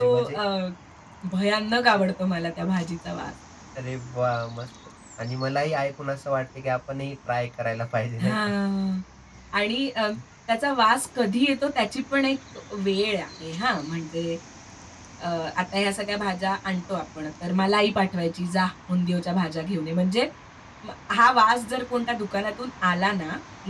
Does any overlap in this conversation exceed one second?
No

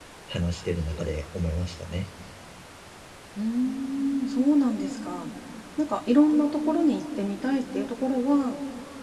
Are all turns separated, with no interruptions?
Yes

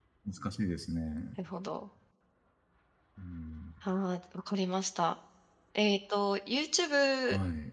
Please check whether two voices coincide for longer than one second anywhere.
No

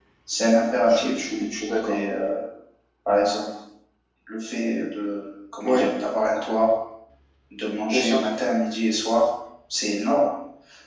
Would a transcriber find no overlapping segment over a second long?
Yes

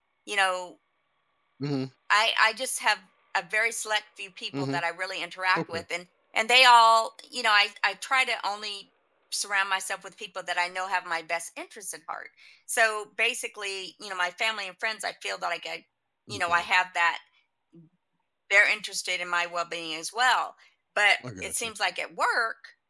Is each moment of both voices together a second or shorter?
Yes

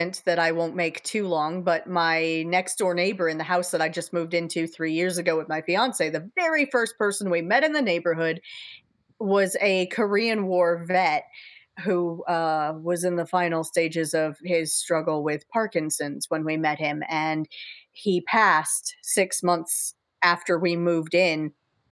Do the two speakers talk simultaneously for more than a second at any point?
No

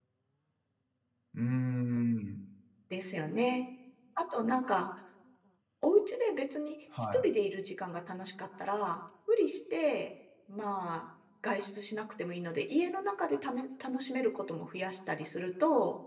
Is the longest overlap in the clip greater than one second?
No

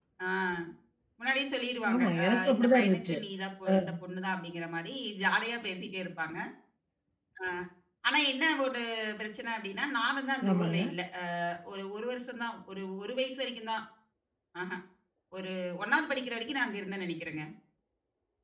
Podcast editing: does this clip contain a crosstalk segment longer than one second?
Yes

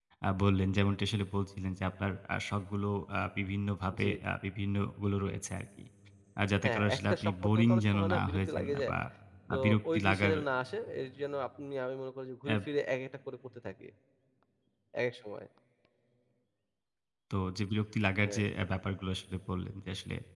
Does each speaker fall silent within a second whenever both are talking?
No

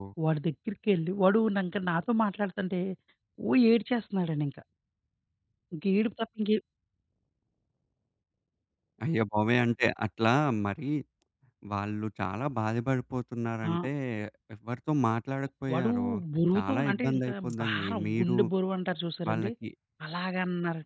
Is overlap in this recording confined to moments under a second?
No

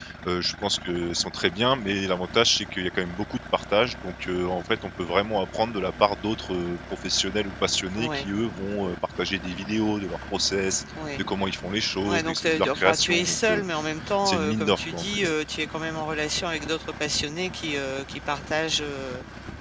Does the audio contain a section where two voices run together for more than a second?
Yes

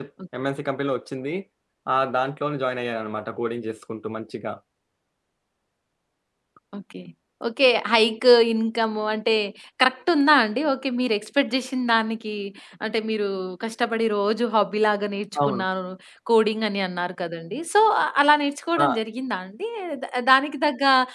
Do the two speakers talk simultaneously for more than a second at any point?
No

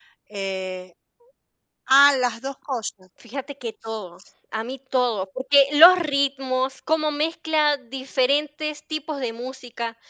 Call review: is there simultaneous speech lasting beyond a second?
No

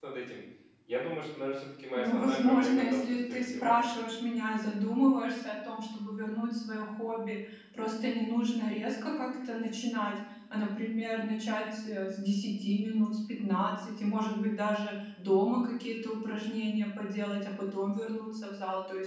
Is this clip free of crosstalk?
No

